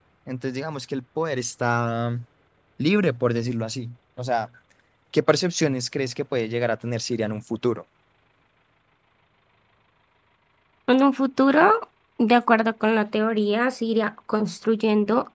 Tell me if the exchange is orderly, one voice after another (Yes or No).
Yes